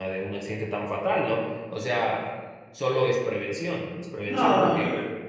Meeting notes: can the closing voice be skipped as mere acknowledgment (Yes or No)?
No